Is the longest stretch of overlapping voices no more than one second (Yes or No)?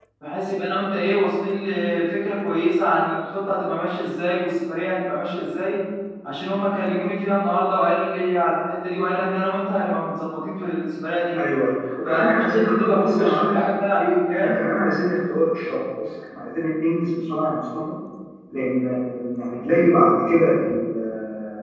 No